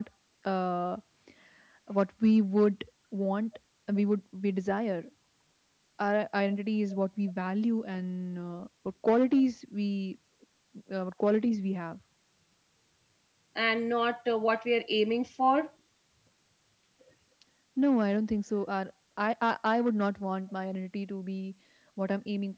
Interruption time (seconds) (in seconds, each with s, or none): none